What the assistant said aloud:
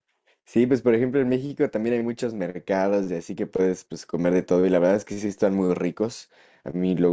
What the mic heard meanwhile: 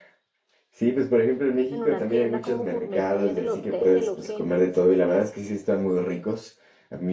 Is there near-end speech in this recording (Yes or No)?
Yes